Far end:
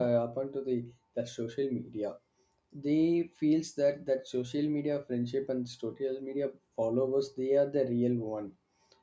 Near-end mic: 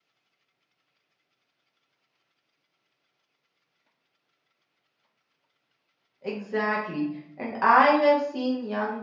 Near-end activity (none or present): present